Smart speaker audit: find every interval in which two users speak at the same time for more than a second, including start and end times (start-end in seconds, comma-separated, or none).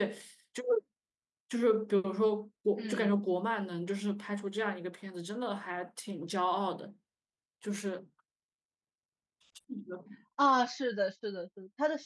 none